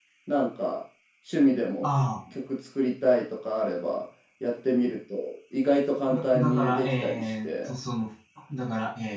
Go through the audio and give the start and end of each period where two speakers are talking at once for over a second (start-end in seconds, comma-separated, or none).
6.1-7.7